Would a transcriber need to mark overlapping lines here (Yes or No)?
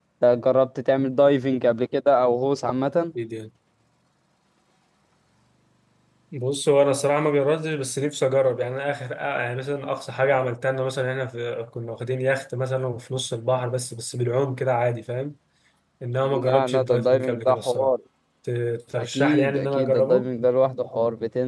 Yes